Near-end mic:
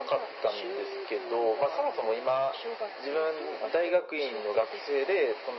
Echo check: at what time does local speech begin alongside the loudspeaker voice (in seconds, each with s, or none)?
none